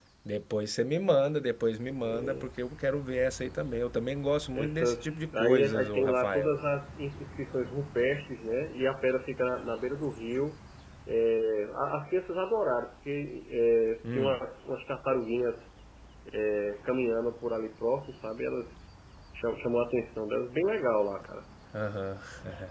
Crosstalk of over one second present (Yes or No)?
Yes